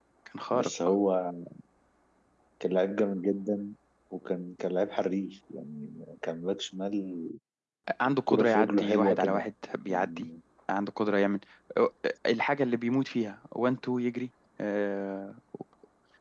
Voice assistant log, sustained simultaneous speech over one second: present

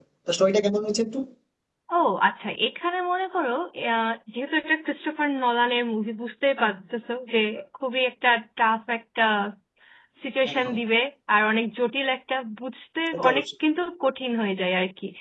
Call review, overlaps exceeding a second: none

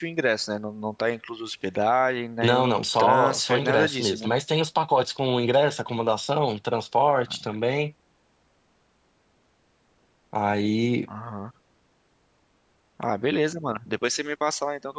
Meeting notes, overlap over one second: present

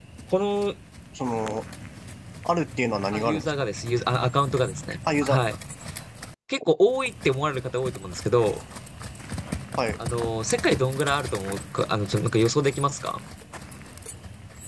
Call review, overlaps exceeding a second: none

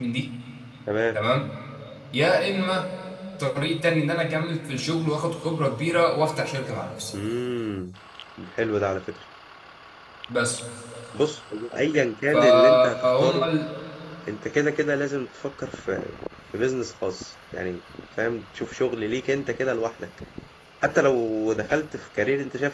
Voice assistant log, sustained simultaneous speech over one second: present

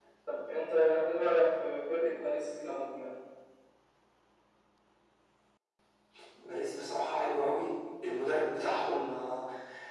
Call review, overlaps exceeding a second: none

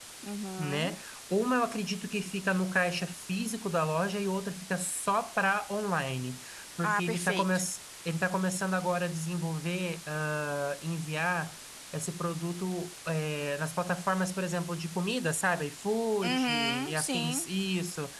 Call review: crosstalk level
present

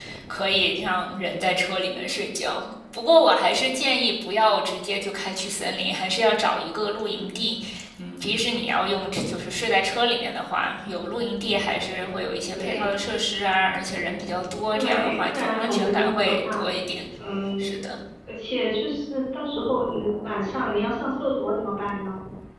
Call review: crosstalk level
present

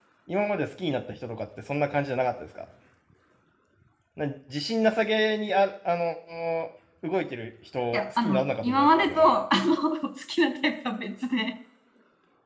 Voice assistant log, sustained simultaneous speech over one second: present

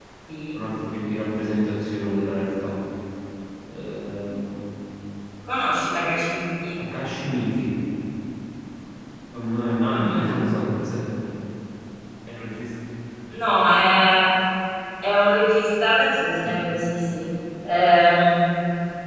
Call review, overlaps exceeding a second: none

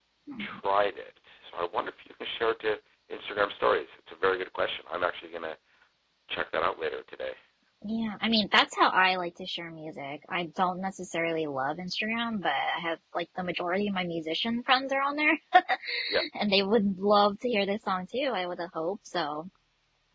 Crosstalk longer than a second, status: none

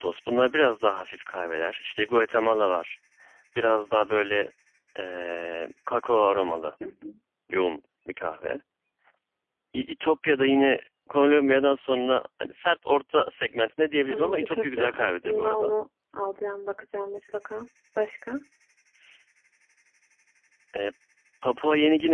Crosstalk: present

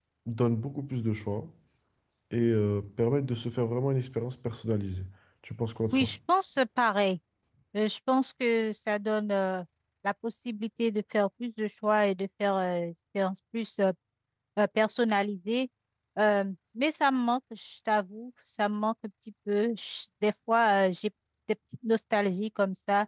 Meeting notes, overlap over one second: none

